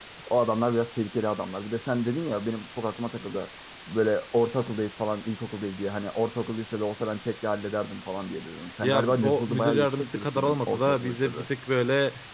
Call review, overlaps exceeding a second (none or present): present